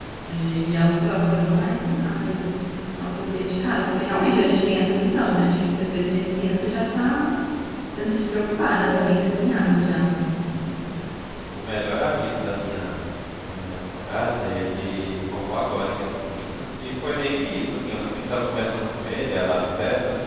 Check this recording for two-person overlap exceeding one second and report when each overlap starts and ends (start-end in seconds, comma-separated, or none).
none